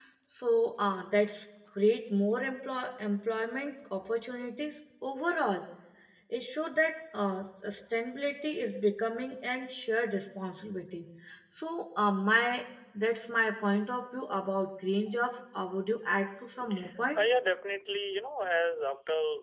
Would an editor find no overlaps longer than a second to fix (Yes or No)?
Yes